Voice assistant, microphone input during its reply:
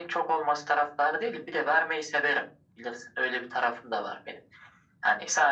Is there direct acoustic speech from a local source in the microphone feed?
No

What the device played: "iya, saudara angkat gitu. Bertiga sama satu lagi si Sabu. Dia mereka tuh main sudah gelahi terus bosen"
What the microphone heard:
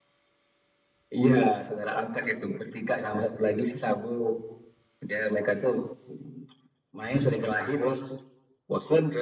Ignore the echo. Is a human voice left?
No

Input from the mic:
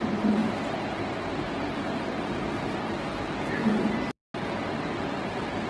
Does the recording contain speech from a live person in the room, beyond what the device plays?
No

